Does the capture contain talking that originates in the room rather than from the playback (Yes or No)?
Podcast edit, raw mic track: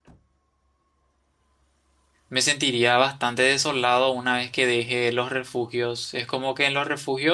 Yes